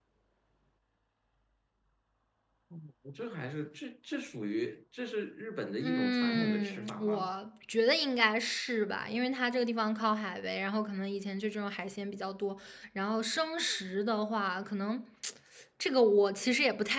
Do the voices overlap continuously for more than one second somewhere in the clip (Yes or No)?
Yes